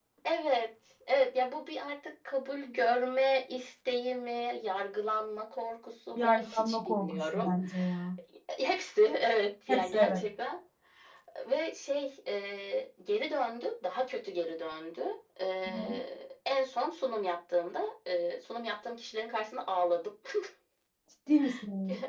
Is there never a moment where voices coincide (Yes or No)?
No